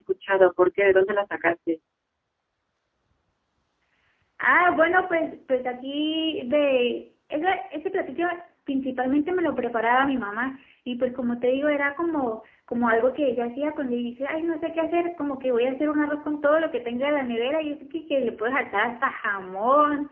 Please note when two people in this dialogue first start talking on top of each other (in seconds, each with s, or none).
none